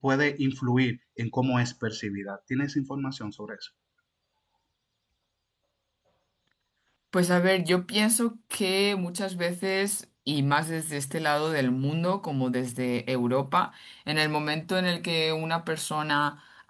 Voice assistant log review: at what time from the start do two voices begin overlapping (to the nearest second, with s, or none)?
none